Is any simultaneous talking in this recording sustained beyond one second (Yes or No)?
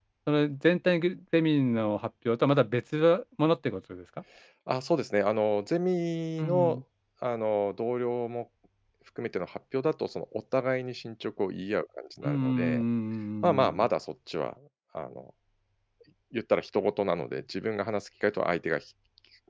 No